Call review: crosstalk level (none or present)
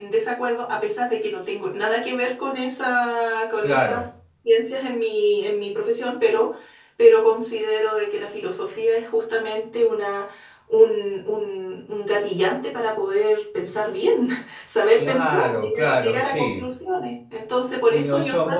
present